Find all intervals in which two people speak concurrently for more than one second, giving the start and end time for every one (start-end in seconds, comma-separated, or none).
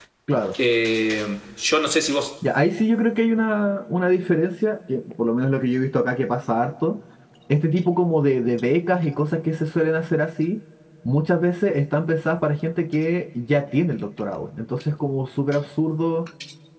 none